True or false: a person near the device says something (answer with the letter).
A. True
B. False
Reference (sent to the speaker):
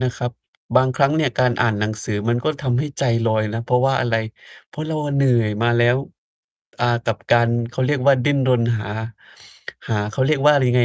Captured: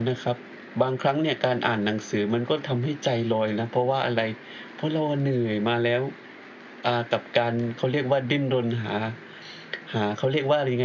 B